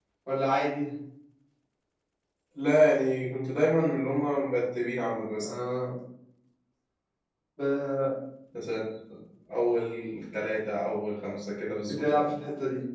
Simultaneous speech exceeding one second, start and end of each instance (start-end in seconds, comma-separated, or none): none